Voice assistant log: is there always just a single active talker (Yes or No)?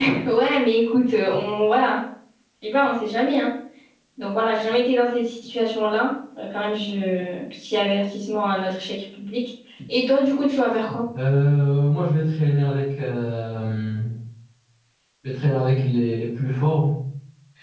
Yes